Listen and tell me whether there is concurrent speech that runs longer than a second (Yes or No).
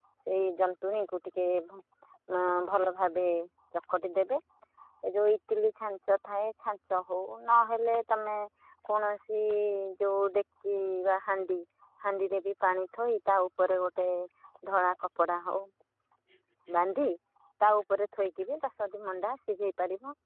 No